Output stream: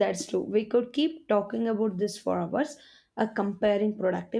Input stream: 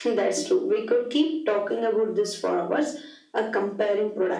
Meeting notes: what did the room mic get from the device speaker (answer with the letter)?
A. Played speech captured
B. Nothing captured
A